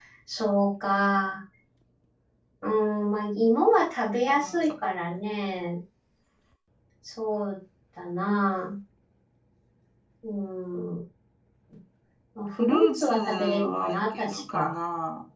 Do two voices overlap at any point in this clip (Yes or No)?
Yes